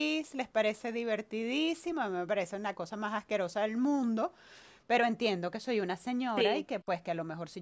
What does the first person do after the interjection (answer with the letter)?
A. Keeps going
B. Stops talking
A